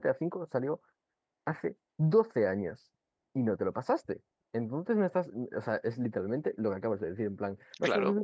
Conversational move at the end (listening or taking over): taking over